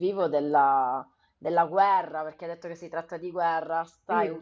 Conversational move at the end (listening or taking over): listening